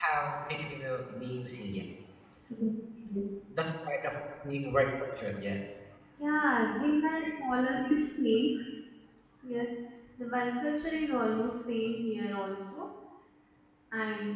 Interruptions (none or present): none